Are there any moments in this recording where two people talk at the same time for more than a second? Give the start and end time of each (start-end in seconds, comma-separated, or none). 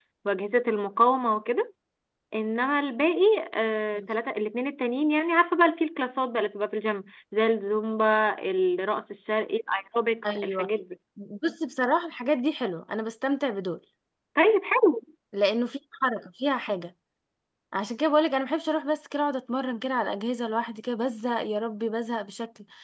none